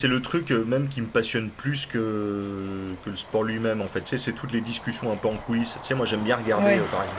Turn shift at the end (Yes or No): No